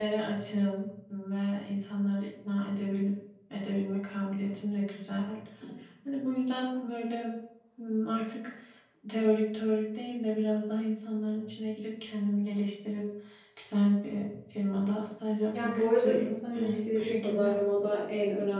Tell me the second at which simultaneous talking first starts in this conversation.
15.5 s

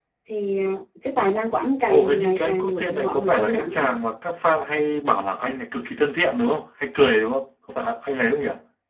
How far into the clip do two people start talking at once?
1.9 s

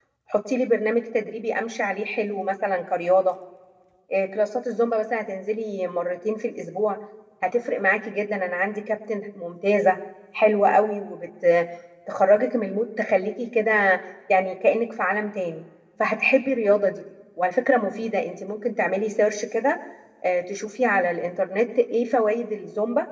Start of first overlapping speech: none

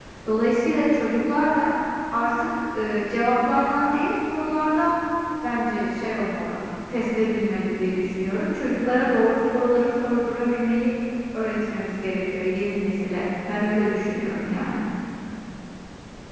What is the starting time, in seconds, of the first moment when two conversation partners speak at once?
none

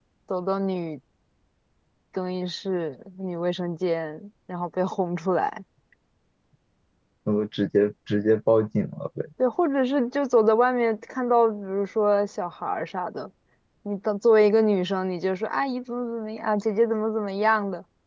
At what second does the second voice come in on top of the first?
none

